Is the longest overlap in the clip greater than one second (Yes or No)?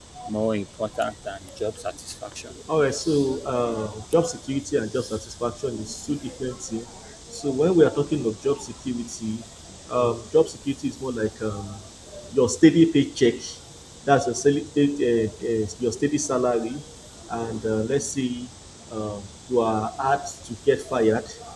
No